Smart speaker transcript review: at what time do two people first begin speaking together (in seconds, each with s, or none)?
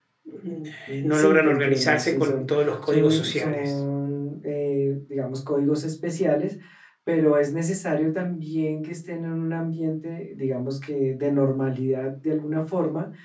1.0 s